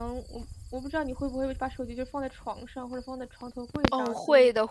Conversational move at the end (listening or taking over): taking over